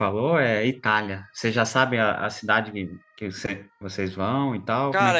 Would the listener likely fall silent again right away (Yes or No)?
No